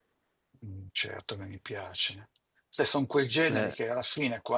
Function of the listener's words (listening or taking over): listening